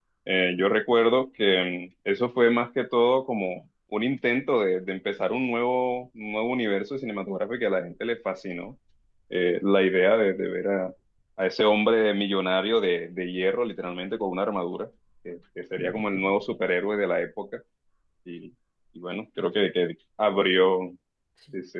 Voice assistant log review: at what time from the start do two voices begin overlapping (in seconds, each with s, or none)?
none